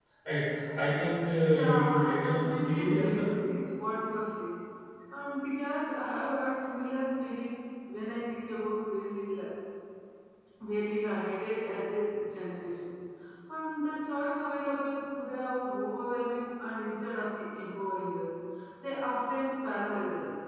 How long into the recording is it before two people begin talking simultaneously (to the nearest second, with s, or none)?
1 s